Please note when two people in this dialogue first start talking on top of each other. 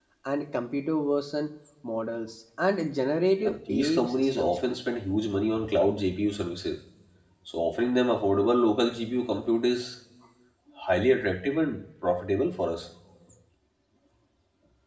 3 s

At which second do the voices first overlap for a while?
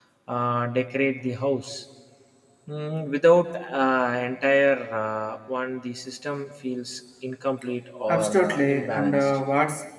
8 s

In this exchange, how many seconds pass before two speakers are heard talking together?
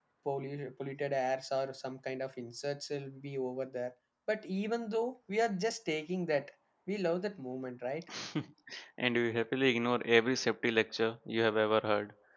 none

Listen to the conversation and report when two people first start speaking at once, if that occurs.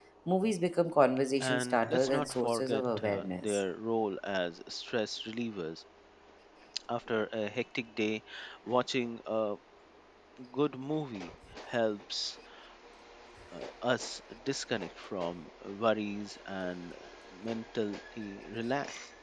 1 s

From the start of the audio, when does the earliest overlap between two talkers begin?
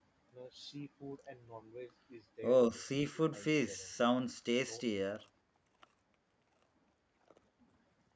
2 s

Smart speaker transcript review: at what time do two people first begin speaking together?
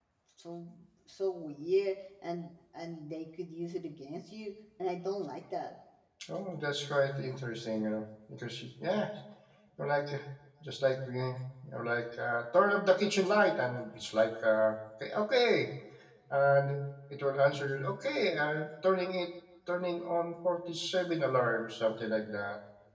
none

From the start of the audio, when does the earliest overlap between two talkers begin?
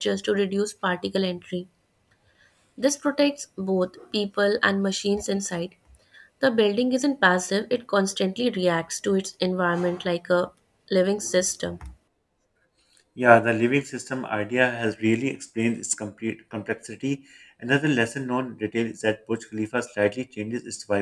none

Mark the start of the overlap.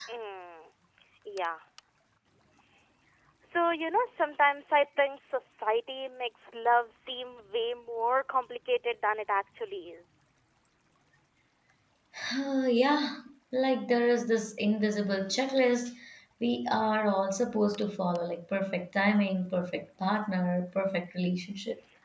none

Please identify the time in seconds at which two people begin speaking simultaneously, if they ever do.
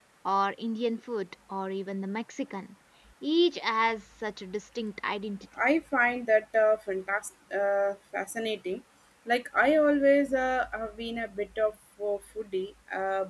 none

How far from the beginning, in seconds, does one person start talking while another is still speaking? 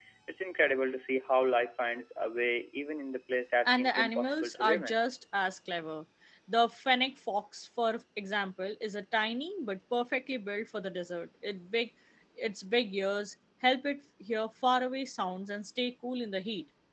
4 s

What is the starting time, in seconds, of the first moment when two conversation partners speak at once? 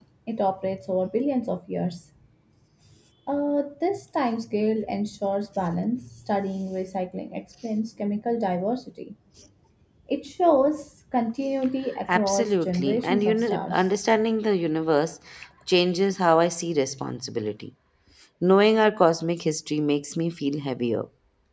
12 s

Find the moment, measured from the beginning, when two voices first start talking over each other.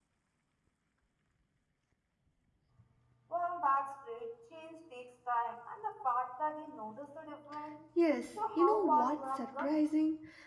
9 s

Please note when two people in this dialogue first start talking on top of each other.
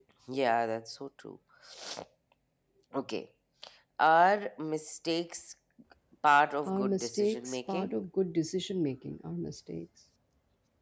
7 s

